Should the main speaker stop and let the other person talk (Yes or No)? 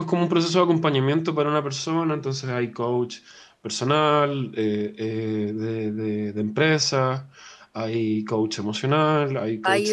Yes